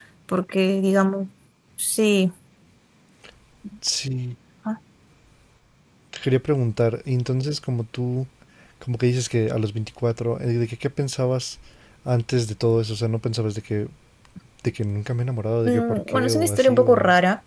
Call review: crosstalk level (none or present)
present